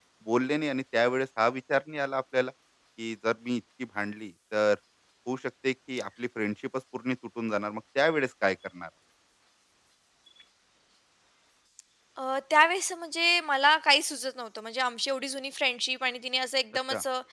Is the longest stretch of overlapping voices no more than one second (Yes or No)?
Yes